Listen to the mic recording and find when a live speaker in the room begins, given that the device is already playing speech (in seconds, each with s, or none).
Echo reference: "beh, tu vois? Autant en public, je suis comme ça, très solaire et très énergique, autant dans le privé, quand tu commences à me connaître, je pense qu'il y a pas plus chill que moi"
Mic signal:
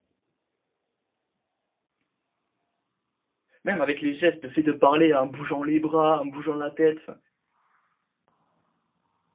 3.6 s